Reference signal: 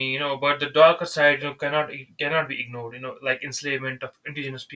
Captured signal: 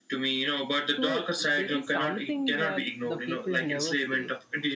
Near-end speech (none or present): present